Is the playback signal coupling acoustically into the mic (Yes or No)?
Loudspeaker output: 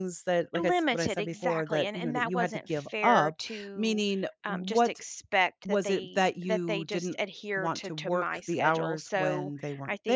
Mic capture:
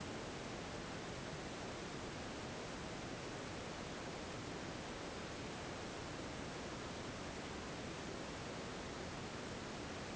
No